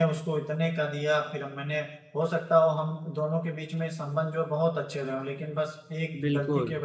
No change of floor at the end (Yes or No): Yes